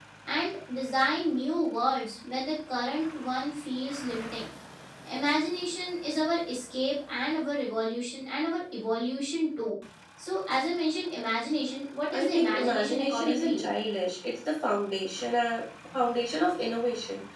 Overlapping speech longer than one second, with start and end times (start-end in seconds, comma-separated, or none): 12.1-13.7